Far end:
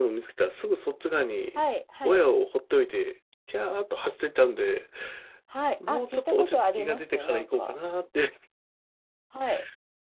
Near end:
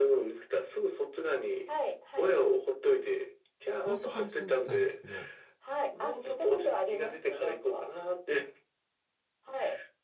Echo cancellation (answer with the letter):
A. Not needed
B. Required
B